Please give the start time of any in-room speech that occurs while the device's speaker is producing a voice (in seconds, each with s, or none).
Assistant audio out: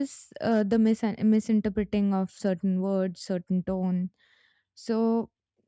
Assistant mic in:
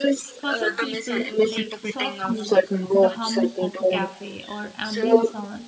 0.3 s